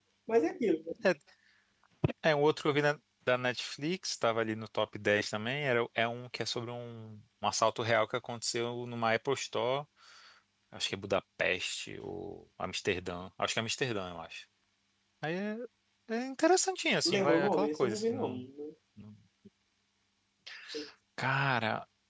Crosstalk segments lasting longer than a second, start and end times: 17.1-18.2

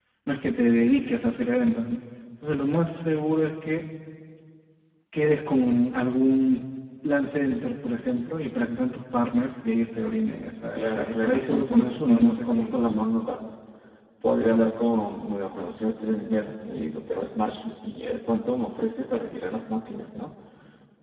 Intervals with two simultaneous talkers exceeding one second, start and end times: 10.8-12.9

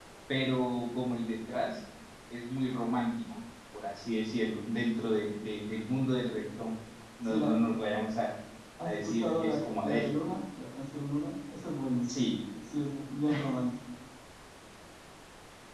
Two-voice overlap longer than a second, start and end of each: 8.8-10.1

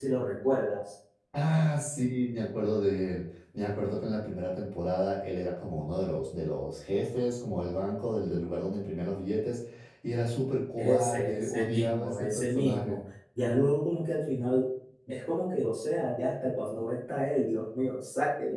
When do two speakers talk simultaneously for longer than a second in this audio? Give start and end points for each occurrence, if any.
10.8-13.0

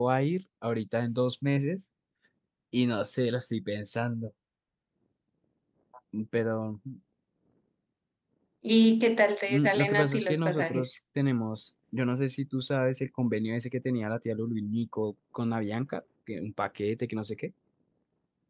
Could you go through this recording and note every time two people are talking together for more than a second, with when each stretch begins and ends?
9.5-11.0

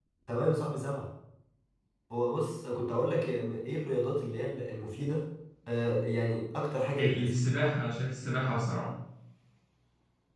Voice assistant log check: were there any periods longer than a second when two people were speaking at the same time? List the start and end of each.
none

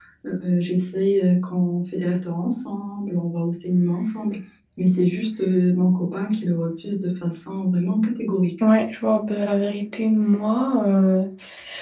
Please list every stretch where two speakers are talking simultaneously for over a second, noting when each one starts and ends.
none

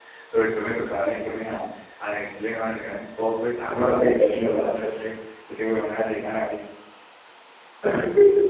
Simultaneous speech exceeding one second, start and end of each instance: 3.6-5.1

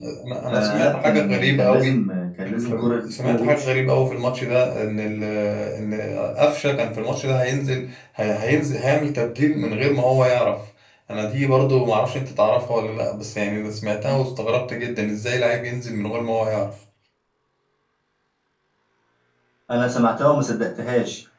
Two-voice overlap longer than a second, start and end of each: 0.5-1.9, 2.5-3.7

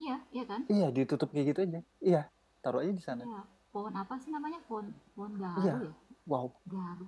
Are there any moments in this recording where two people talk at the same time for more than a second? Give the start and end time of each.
none

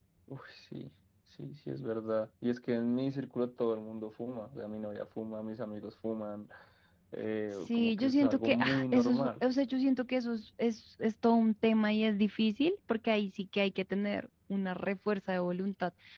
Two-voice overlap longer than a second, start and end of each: 7.5-9.3

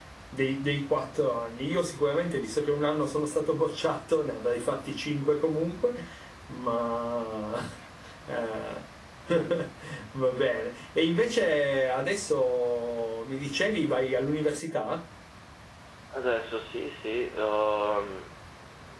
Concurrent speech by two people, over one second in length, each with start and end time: none

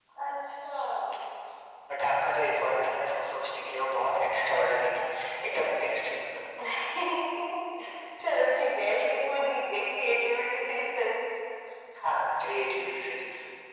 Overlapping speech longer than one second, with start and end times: none

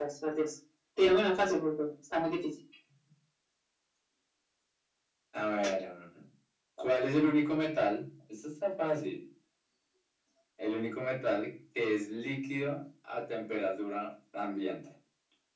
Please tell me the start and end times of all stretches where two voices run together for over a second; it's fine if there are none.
none

